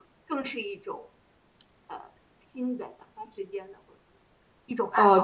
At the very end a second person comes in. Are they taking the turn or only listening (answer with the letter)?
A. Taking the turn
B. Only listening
A